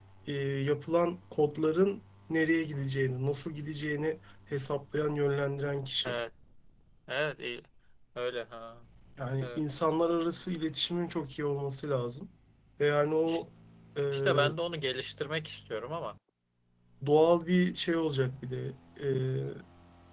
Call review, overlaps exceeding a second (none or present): none